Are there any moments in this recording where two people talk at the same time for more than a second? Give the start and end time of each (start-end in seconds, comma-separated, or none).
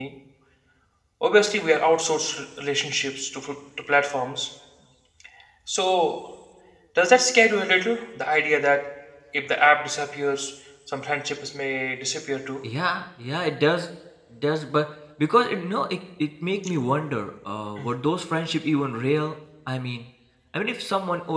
none